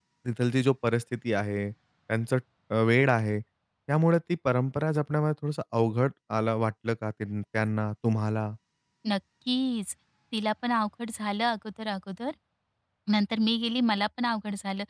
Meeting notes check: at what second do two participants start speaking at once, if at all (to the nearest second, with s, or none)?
none